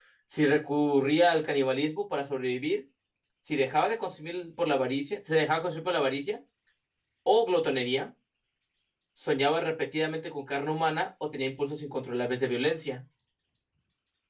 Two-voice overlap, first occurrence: none

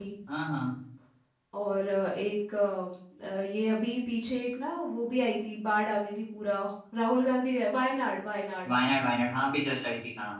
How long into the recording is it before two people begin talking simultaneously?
none

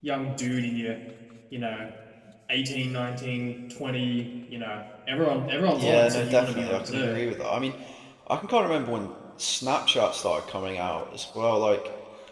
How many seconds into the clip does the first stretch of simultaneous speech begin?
5.7 s

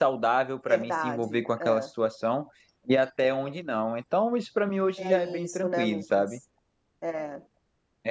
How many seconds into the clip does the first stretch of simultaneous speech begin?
0.7 s

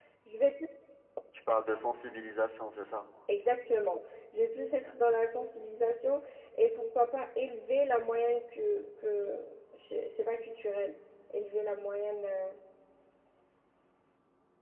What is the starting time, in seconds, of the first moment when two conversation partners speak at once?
none

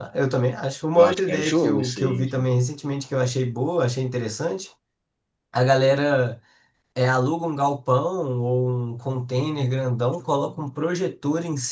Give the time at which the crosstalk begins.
0.9 s

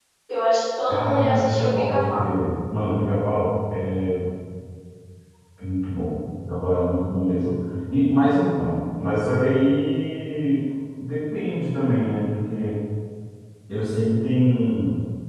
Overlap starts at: 0.9 s

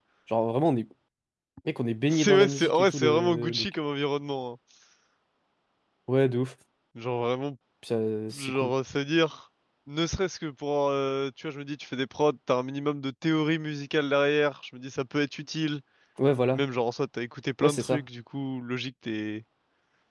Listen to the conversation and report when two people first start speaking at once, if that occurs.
2.1 s

